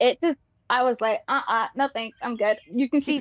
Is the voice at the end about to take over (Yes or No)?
Yes